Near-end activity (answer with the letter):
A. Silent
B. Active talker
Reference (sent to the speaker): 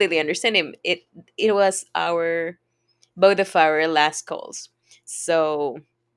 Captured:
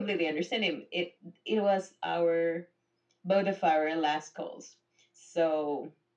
A